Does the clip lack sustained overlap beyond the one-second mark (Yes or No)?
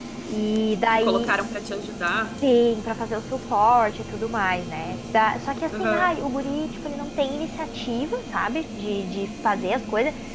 Yes